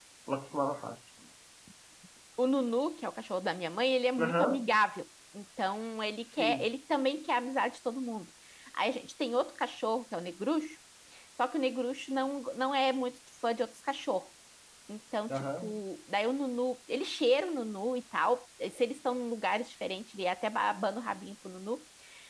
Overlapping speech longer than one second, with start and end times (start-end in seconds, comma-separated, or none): none